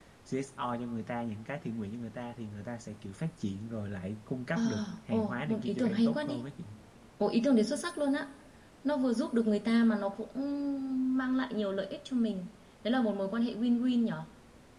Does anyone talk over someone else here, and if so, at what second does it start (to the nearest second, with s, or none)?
5 s